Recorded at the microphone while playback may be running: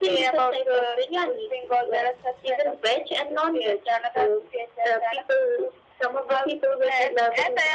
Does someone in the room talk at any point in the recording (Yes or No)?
No